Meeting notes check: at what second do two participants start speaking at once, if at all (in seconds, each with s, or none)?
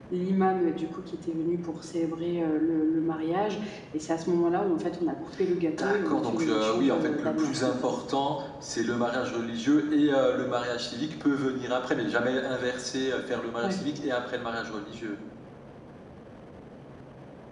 5.7 s